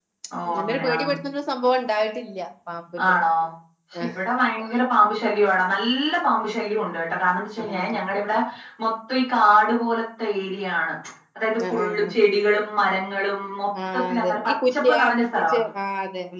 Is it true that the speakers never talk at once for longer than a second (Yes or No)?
No